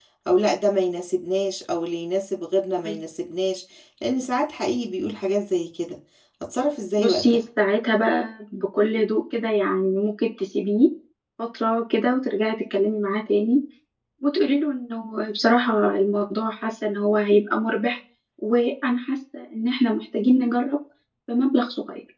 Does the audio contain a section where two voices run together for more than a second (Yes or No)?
No